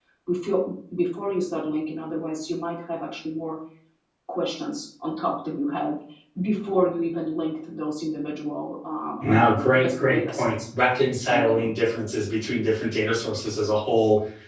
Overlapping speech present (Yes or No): Yes